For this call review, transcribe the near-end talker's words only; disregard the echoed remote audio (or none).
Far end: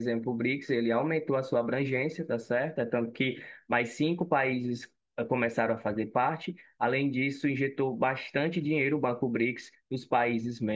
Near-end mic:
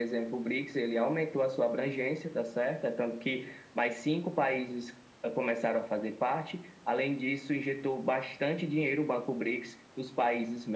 none